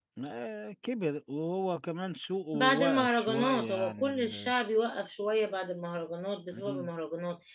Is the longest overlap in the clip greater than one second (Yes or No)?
Yes